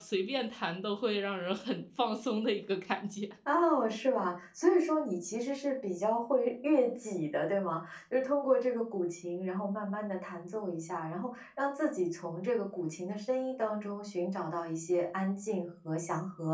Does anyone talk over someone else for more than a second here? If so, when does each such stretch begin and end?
none

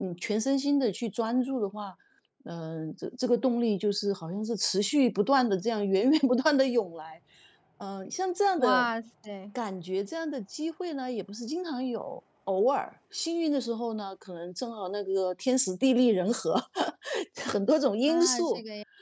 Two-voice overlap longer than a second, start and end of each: none

